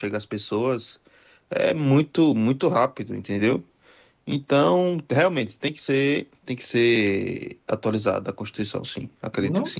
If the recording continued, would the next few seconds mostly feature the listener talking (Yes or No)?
Yes